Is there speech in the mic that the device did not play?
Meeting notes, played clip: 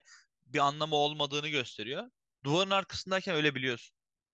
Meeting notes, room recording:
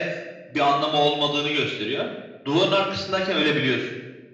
No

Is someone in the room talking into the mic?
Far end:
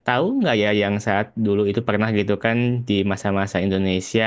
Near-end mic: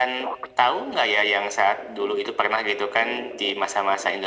No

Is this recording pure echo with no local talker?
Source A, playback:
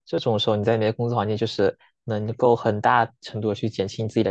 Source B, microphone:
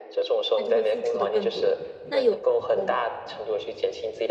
No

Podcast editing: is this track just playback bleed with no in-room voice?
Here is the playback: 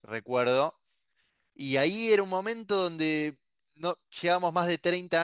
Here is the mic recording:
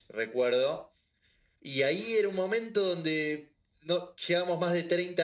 Yes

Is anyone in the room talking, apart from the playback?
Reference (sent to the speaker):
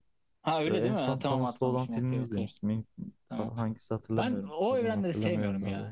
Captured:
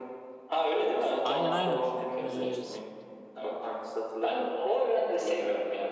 Yes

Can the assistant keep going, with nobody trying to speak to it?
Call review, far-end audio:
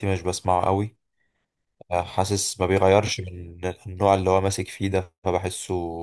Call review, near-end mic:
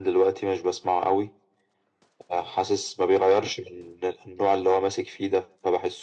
Yes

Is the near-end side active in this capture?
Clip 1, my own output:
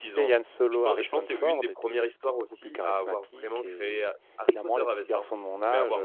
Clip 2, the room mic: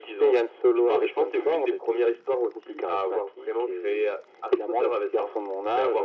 No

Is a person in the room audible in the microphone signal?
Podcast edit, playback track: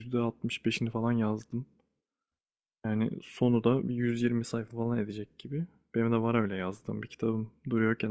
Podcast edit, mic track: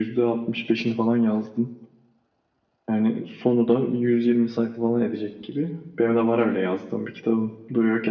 No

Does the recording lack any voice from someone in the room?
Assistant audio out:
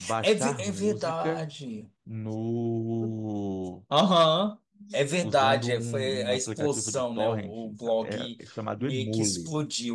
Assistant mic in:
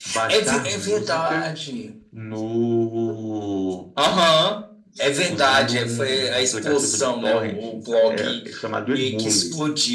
Yes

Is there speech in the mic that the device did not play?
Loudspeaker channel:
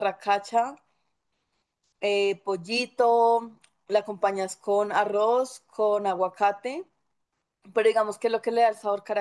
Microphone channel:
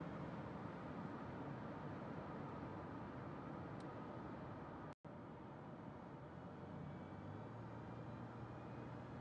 No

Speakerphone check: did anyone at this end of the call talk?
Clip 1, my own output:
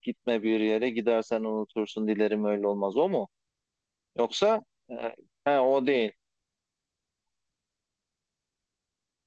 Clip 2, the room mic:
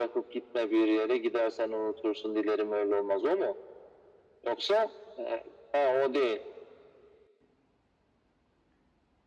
No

